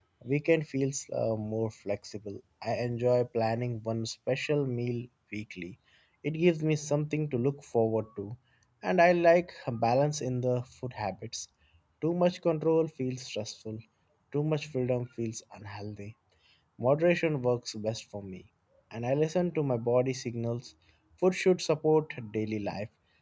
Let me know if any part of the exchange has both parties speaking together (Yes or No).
No